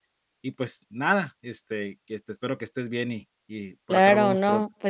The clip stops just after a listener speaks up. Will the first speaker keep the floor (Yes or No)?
No